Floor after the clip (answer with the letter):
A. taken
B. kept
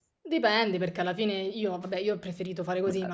B